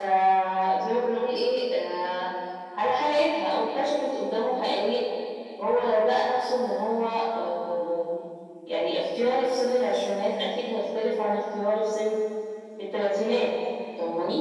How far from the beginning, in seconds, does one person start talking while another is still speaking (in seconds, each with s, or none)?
none